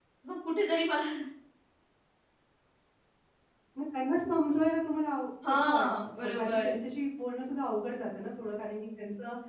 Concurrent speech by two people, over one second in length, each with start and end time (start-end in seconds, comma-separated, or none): 5.5-6.7